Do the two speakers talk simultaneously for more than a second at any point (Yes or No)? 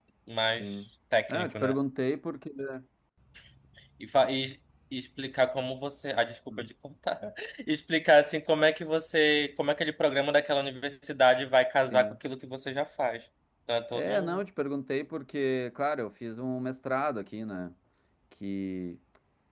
No